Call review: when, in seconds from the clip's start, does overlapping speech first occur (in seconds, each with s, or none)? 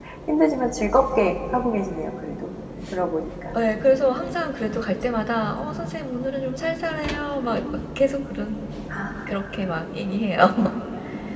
none